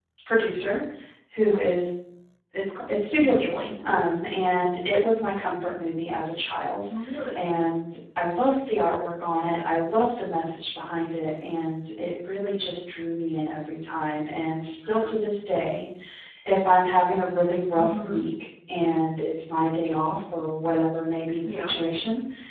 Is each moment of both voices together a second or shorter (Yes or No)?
Yes